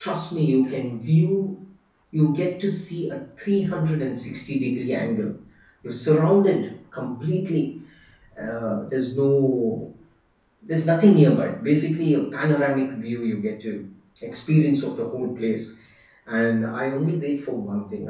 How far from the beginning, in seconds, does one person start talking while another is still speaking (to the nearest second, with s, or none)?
none